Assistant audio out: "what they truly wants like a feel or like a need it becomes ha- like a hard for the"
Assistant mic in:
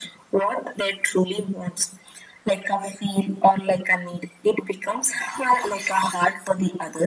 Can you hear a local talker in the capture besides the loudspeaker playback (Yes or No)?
No